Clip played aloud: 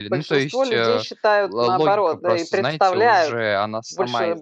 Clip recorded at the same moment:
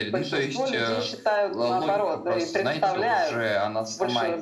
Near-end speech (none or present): none